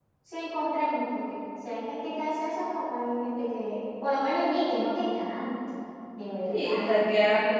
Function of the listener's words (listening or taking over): taking over